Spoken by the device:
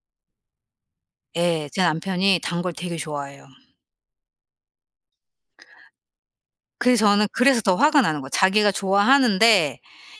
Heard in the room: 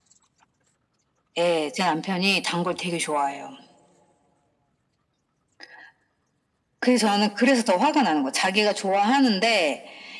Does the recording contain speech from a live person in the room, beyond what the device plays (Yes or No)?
No